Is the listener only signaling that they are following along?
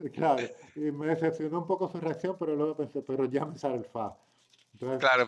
No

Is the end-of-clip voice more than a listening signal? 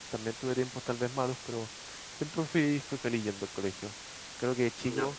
No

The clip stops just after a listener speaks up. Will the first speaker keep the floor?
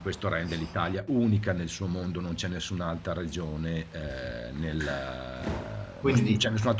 Yes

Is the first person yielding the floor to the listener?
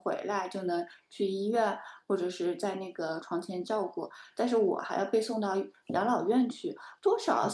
No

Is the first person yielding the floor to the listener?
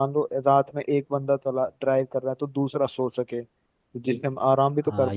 Yes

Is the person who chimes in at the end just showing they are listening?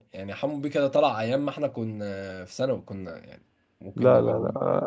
No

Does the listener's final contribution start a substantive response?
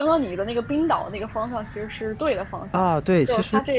Yes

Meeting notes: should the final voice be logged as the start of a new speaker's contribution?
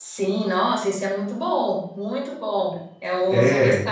No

